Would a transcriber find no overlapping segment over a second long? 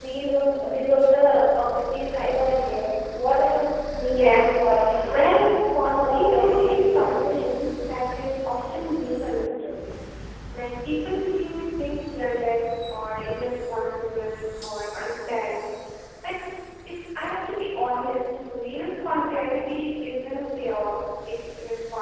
No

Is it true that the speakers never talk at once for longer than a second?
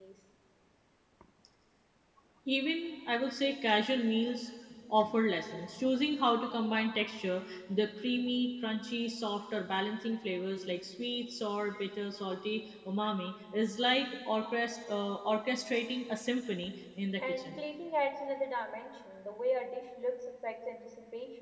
Yes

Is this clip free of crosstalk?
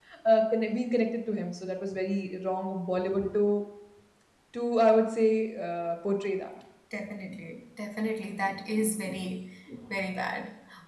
Yes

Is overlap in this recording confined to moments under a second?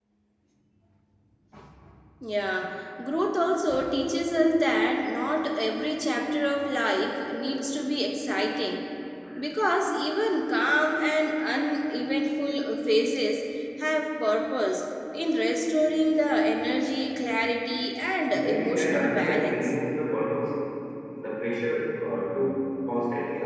No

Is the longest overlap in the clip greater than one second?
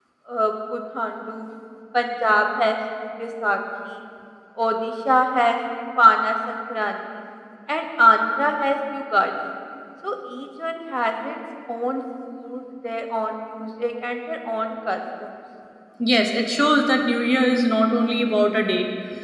No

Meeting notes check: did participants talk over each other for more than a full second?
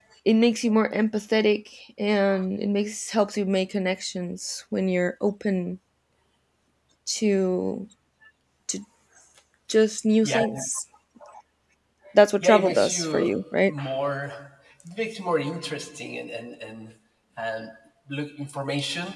Yes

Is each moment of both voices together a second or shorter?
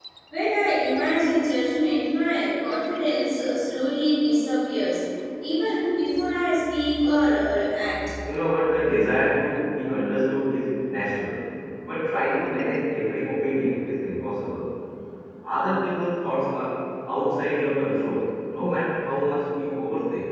Yes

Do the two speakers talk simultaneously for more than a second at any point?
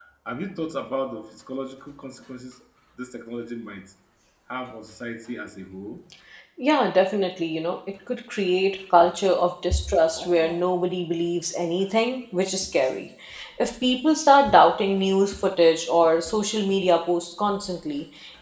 No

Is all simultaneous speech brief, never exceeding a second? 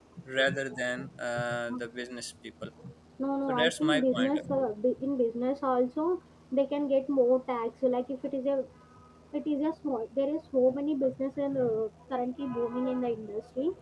No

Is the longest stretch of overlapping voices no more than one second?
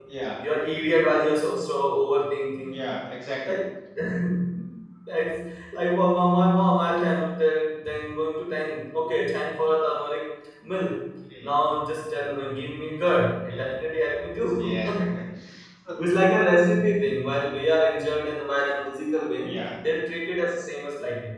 Yes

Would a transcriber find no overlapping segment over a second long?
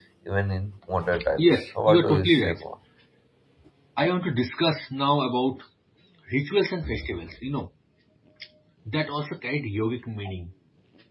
No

